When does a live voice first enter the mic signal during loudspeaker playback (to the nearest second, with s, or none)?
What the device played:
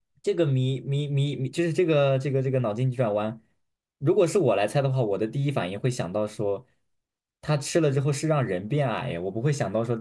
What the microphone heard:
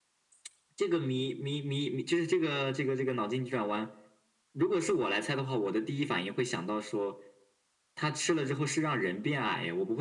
none